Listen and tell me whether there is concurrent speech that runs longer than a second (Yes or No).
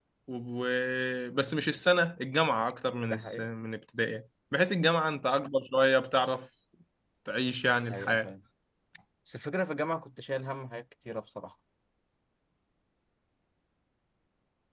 No